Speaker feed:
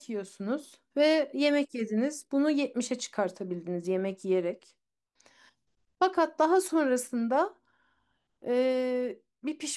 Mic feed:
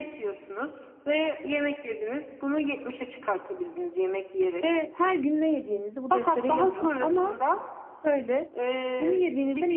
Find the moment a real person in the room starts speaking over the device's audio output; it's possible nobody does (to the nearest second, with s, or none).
5 s